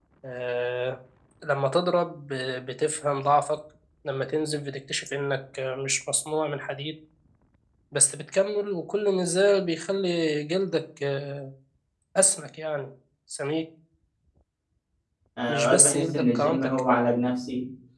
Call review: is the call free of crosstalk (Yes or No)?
No